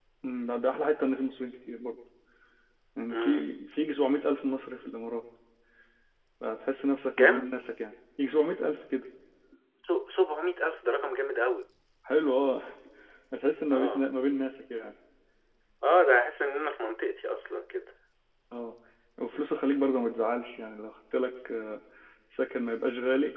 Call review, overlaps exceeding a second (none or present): none